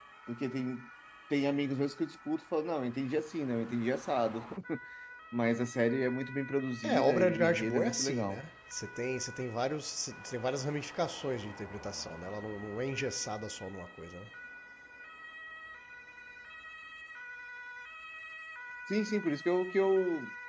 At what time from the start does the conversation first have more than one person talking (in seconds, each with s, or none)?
6.8 s